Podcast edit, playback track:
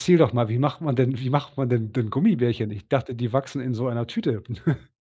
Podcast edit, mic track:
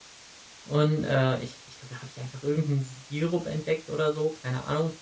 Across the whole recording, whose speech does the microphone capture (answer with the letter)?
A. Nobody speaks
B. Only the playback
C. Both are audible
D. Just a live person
D